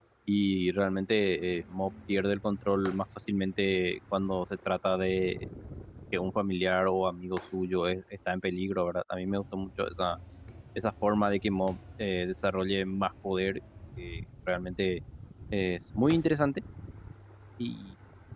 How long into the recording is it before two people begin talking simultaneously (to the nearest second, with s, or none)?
none